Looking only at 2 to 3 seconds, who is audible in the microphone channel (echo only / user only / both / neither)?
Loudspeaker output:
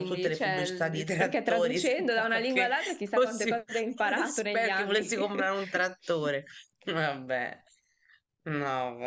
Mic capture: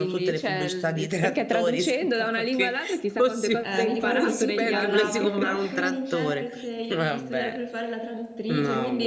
echo only